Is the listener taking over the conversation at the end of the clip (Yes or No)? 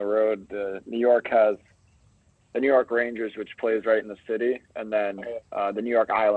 No